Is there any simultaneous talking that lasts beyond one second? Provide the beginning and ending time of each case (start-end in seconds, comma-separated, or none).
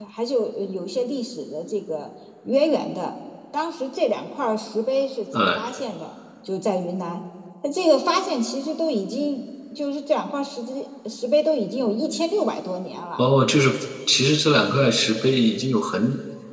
none